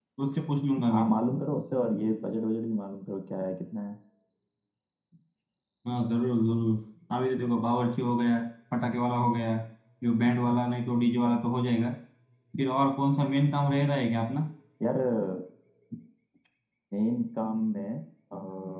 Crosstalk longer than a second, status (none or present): none